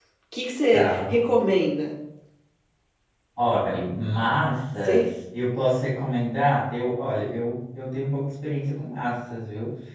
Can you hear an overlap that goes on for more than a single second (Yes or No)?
No